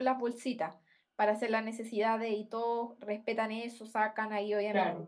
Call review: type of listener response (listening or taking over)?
listening